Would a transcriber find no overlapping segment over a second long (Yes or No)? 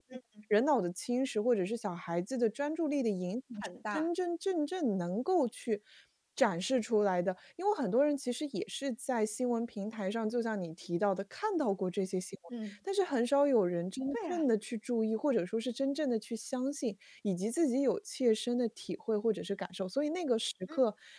Yes